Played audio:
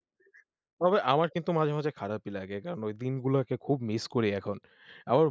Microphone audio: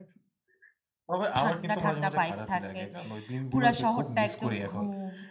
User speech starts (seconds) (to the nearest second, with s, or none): 1 s